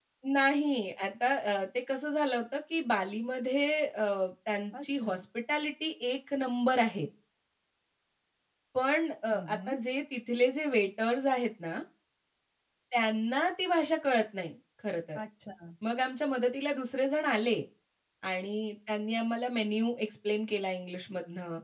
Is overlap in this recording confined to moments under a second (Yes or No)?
Yes